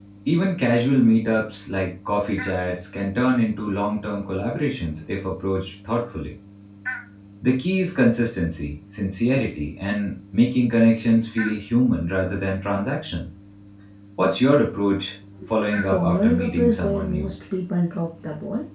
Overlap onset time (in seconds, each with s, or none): 15.8 s